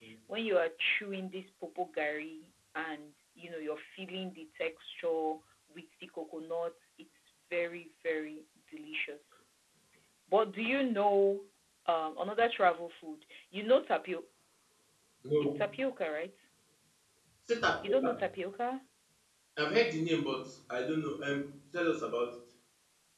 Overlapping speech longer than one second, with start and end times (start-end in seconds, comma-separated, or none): none